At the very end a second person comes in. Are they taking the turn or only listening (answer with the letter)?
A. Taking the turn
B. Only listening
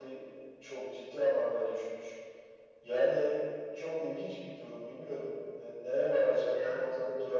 B